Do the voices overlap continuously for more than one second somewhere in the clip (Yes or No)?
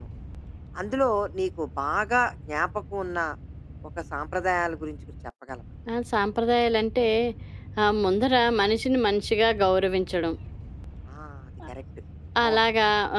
No